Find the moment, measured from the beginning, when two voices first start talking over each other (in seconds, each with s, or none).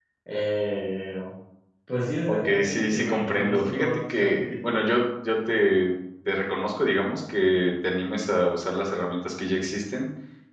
2.3 s